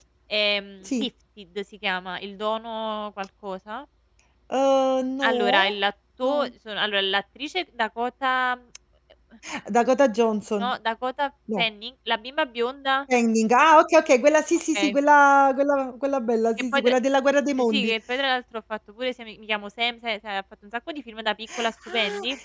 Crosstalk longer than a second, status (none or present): none